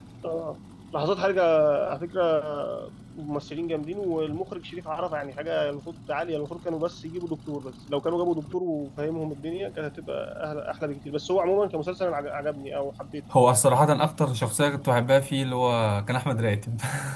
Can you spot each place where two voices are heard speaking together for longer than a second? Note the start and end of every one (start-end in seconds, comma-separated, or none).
none